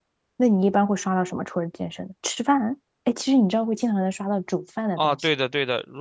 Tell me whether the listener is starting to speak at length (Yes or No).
Yes